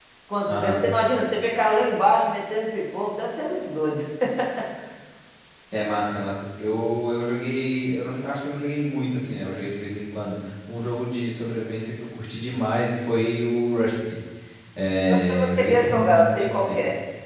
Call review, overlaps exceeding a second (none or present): present